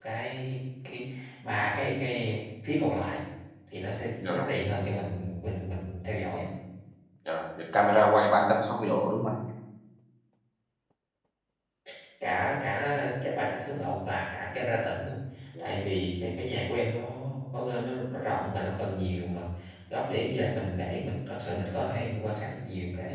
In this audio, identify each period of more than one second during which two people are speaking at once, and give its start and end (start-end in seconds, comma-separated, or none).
none